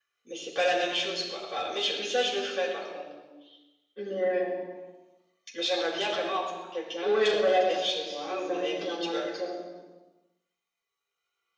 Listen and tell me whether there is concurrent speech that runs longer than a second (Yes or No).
Yes